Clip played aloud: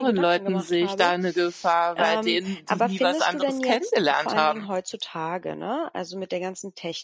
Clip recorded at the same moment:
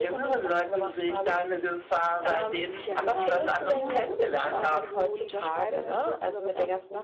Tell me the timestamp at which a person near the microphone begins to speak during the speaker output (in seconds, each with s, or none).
2.3 s